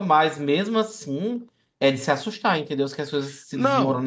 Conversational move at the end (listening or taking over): taking over